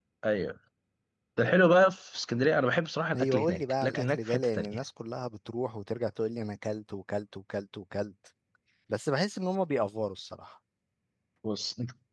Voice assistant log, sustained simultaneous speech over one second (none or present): present